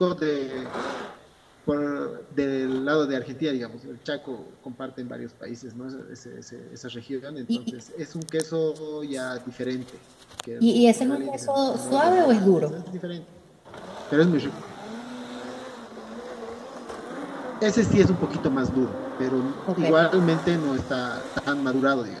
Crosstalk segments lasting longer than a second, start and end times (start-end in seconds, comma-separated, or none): 10.6-12.7